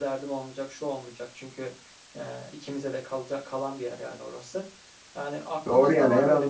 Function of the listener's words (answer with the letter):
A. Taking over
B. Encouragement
A